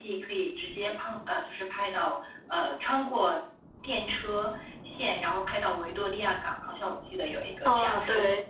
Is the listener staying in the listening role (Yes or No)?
No